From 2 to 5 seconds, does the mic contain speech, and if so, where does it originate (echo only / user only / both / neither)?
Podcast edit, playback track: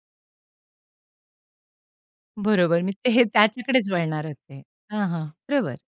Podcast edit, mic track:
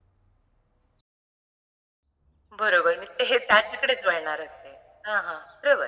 echo only